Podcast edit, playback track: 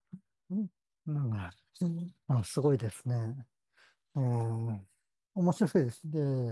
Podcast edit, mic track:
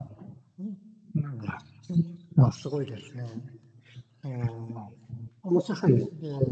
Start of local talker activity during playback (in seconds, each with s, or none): none